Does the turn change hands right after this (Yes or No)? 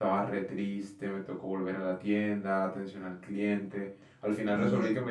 No